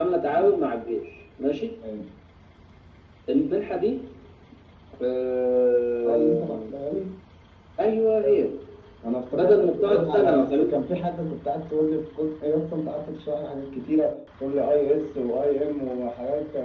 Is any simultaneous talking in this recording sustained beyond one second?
Yes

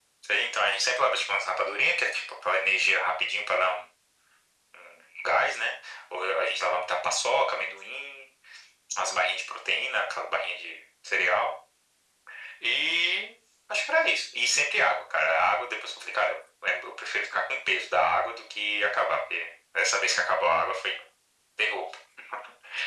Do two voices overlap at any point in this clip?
No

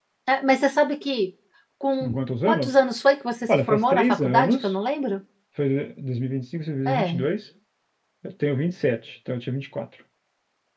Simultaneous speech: Yes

